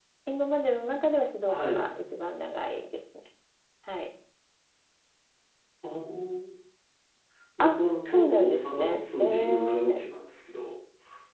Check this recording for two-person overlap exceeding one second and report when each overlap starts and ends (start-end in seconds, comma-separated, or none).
7.6-10.0